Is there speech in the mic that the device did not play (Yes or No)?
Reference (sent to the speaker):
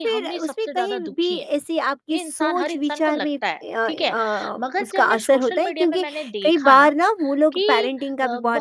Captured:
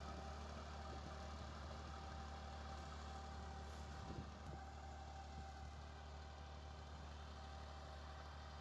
No